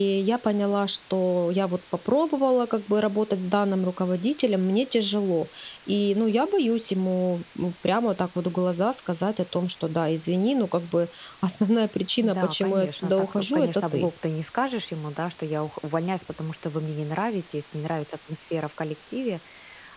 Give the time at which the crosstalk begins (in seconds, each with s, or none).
12.2 s